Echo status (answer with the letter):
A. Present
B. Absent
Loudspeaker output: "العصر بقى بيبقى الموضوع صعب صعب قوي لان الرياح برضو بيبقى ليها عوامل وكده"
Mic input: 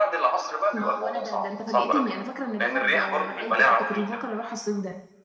A